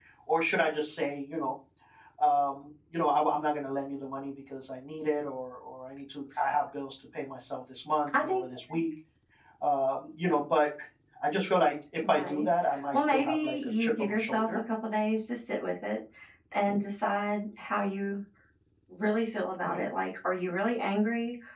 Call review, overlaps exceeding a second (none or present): present